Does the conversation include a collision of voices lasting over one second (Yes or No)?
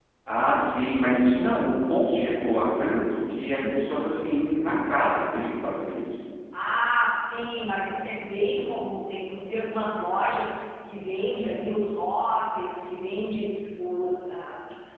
No